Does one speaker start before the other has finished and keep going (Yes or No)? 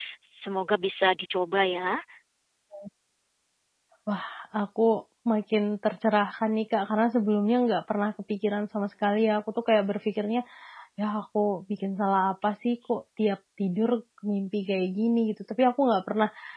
No